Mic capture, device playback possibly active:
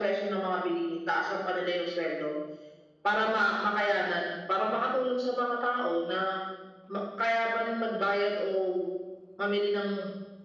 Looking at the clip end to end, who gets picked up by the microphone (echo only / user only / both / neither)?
echo only